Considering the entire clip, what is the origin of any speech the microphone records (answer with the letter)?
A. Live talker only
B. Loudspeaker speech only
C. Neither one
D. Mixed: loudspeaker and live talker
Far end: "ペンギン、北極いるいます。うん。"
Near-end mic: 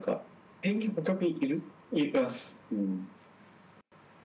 B